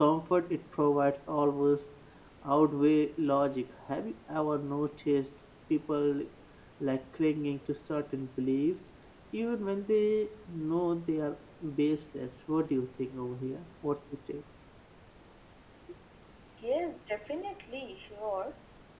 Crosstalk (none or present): none